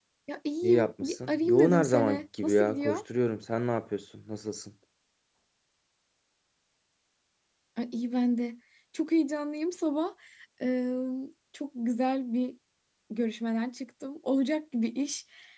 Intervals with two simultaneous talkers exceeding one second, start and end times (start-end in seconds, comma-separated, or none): 0.6-3.0